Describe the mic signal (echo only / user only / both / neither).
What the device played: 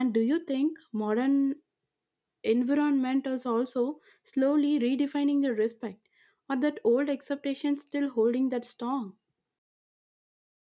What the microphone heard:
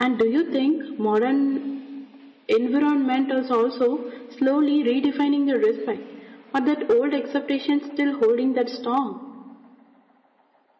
echo only